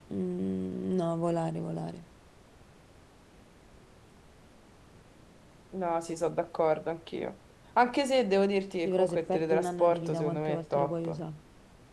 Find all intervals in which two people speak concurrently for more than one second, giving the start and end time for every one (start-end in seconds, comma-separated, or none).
8.8-11.2